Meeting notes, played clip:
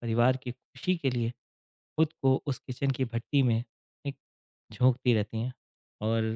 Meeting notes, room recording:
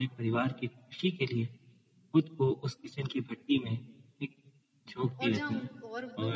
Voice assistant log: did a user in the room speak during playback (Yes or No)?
Yes